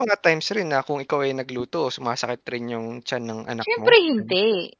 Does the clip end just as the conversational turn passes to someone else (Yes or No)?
Yes